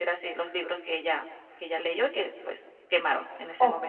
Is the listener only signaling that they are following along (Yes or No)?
No